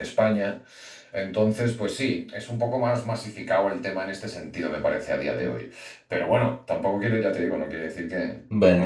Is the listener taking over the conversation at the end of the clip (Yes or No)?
Yes